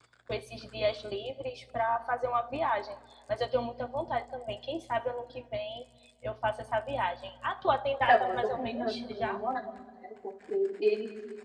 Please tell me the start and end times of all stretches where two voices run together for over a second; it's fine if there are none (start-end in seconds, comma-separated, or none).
8.1-9.4